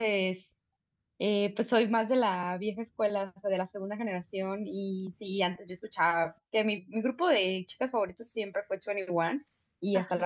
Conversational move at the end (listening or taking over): listening